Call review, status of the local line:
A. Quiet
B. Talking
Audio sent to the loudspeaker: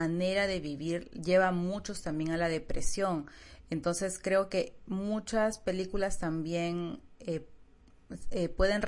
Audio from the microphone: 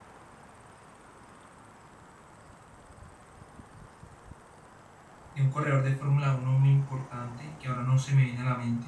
B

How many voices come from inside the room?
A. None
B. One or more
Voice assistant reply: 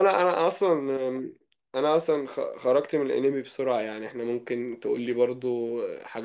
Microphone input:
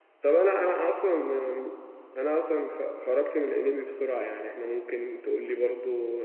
A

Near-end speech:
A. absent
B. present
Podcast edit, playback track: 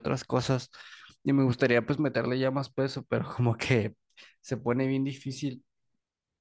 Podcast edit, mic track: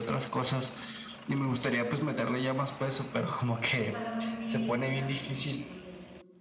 B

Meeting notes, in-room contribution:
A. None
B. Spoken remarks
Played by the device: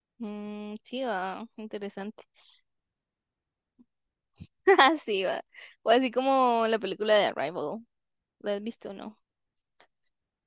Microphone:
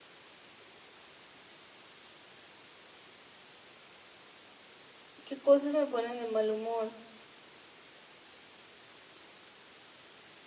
B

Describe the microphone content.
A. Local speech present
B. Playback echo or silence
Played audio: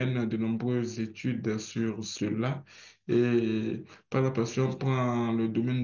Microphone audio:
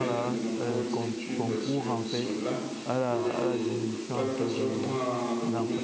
A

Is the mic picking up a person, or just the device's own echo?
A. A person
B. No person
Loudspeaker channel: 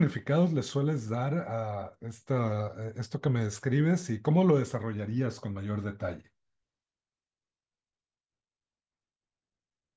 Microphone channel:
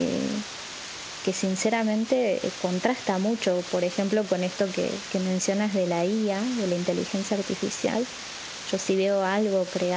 A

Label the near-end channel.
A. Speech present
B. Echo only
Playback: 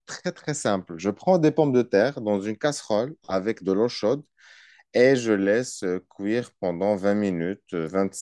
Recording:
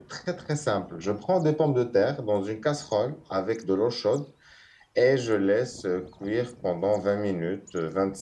B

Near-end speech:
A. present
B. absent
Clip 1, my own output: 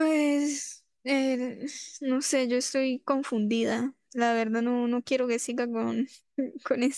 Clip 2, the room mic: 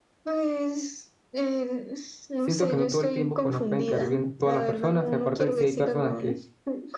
A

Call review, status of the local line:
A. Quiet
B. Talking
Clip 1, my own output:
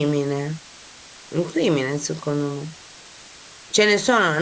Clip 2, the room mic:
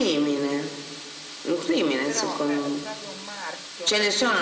B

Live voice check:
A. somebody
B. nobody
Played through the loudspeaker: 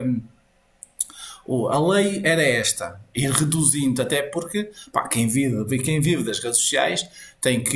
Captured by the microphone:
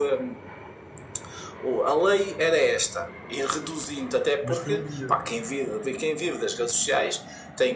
A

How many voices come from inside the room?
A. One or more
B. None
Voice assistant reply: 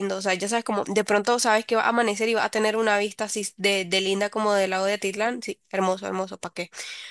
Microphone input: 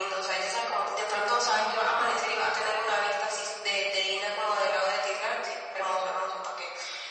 B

